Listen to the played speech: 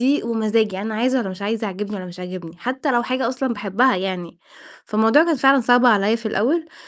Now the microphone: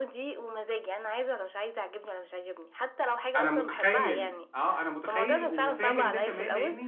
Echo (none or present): present